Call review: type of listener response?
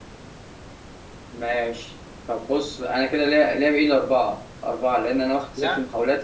listening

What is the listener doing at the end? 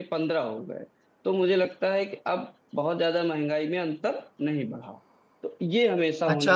taking over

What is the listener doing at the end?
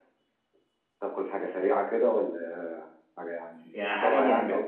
taking over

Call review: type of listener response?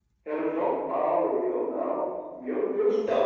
taking over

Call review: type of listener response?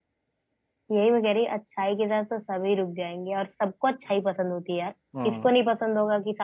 listening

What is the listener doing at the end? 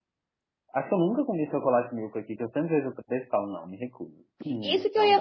taking over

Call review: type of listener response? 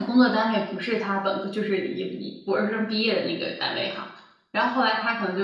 listening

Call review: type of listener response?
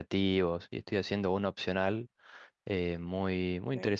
listening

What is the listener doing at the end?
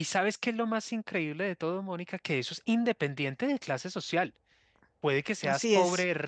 listening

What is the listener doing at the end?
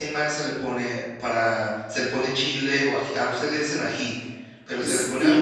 taking over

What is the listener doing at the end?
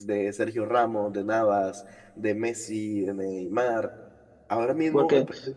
listening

